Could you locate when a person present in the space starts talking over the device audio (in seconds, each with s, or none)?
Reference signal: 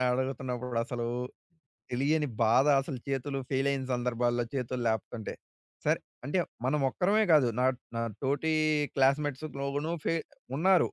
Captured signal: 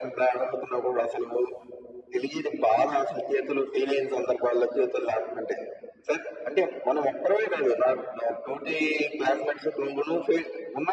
none